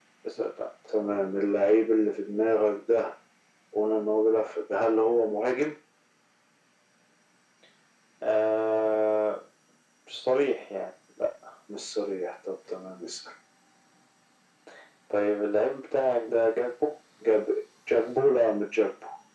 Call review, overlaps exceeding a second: none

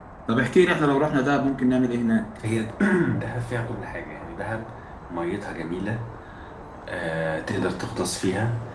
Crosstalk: none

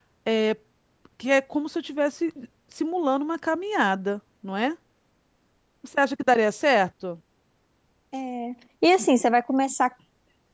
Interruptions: none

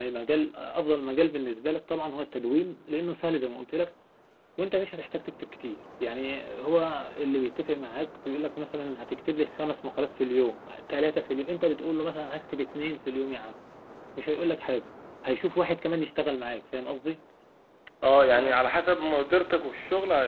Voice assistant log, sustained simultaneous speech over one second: none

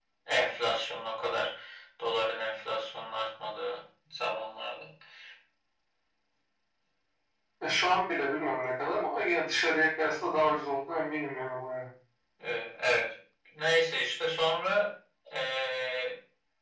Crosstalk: none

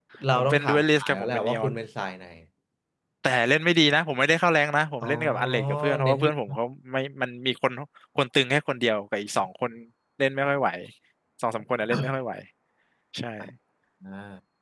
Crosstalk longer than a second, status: present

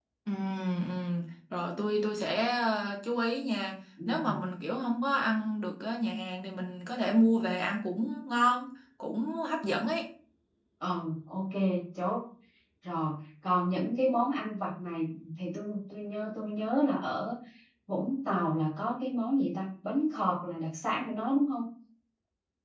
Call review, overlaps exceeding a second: none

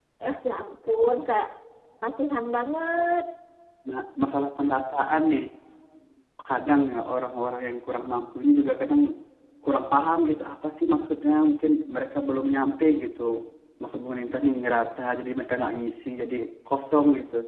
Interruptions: none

